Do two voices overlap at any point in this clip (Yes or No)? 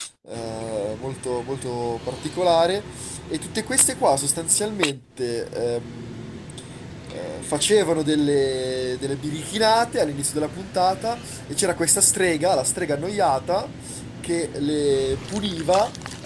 No